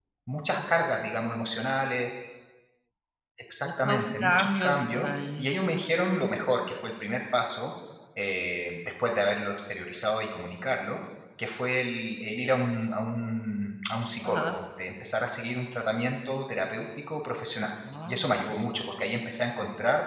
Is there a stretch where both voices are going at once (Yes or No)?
Yes